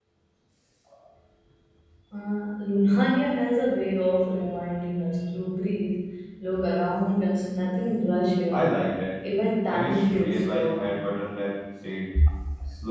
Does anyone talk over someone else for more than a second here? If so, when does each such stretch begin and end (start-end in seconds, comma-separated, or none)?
9.7-10.9